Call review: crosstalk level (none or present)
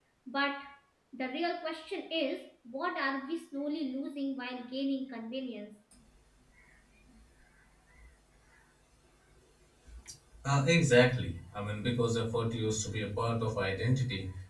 none